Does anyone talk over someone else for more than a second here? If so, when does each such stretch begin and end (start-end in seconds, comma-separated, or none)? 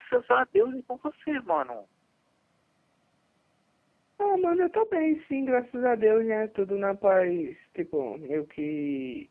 none